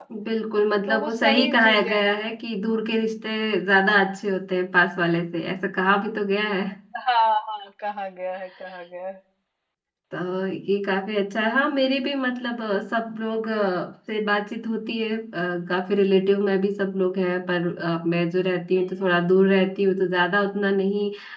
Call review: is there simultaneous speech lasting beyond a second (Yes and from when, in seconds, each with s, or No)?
Yes, from 0.9 s